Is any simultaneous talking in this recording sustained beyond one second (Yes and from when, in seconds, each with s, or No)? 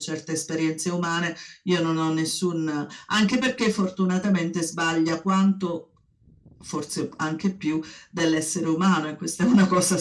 No